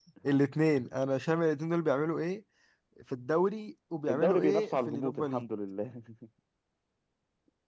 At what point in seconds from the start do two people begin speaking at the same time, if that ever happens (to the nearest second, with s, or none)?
4 s